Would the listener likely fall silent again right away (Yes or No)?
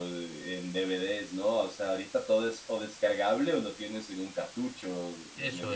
No